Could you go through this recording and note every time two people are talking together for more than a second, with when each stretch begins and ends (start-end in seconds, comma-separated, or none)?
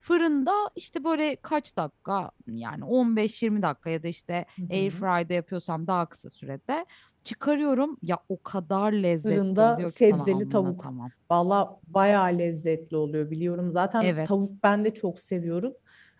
9.2-10.9